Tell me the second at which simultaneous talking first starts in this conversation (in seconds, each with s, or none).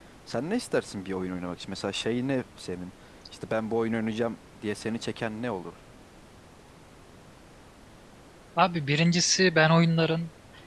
none